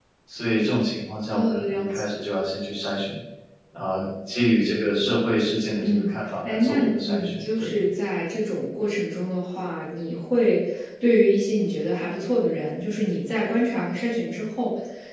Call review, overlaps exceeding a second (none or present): present